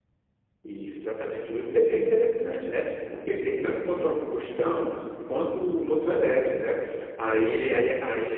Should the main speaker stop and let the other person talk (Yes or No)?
No